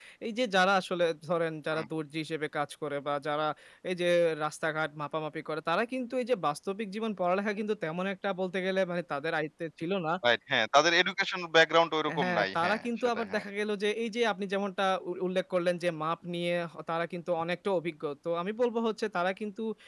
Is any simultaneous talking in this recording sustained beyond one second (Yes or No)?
Yes